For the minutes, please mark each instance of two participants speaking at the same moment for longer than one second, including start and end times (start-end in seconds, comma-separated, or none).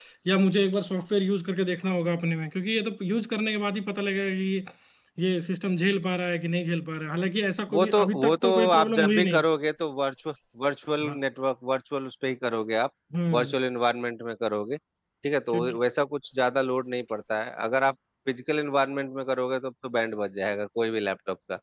7.7-9.4